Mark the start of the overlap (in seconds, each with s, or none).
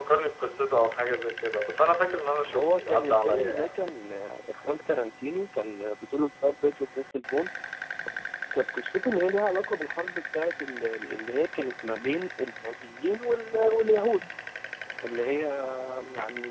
2.4 s